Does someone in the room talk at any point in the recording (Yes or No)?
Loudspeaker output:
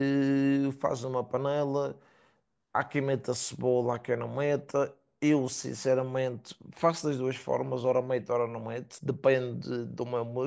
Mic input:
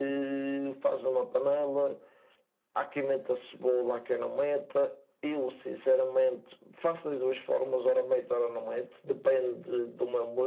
No